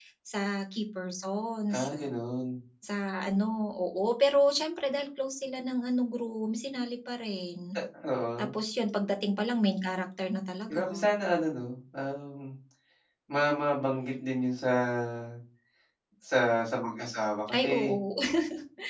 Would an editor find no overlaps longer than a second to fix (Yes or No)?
Yes